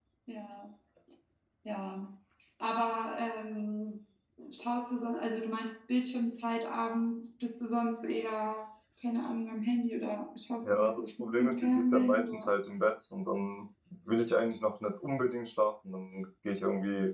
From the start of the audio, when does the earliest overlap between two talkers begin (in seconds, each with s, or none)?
10.6 s